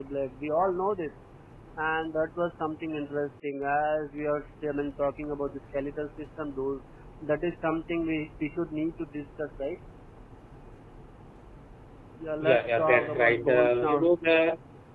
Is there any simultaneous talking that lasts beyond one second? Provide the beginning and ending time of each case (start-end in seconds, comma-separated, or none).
12.4-14.1